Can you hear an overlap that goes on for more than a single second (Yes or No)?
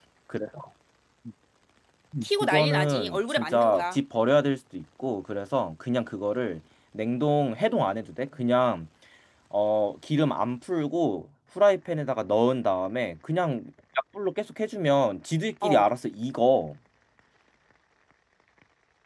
Yes